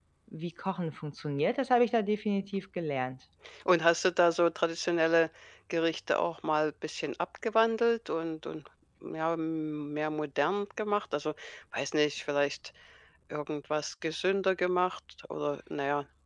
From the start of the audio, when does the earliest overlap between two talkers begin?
none

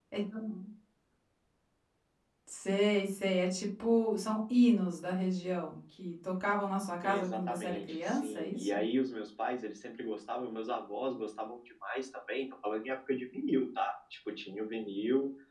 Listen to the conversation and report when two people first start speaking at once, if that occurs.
7.0 s

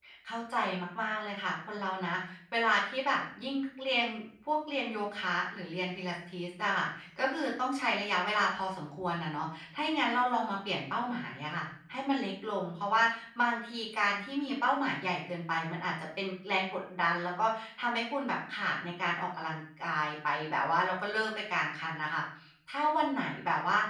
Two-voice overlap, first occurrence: none

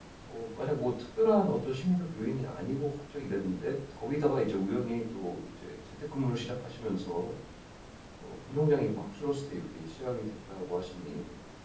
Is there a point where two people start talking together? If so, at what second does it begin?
none

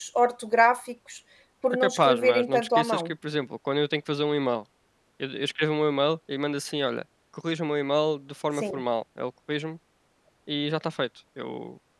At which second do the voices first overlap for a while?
1.7 s

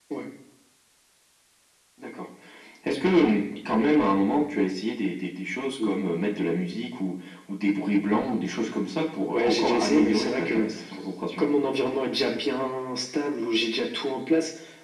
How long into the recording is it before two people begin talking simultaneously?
9.3 s

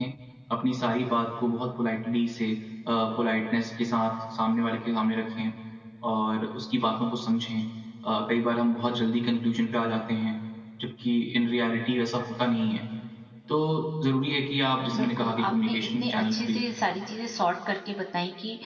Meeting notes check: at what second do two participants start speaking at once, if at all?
14.9 s

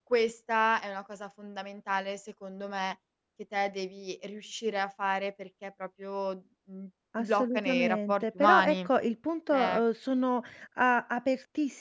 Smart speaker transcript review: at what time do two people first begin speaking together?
7.2 s

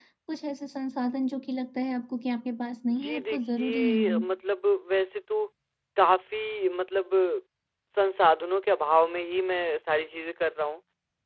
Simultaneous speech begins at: 2.9 s

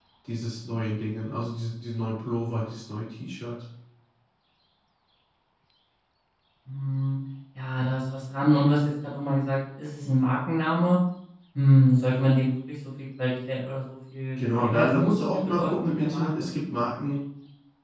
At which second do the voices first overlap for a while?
14.4 s

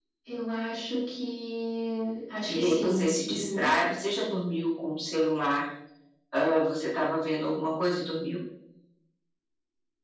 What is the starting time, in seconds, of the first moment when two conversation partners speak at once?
2.5 s

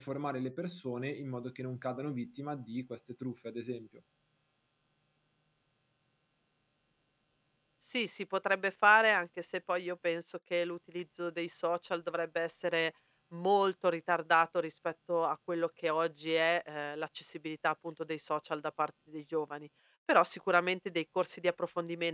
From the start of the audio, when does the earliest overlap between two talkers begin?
none

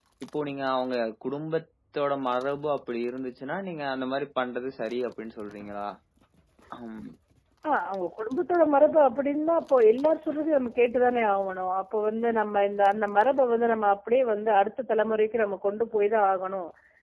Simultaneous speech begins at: none

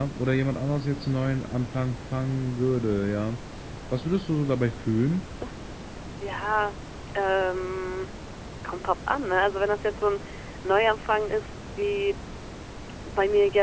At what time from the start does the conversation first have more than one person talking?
none

